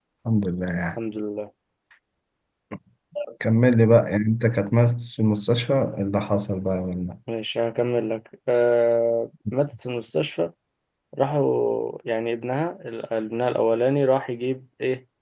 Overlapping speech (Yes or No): No